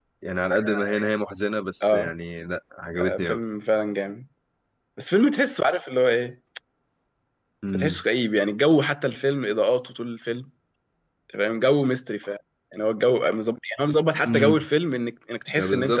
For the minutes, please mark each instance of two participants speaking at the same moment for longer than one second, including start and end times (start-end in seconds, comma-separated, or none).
none